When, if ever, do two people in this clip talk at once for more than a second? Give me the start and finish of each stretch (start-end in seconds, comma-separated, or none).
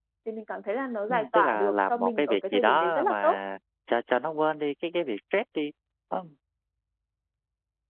1.1-3.4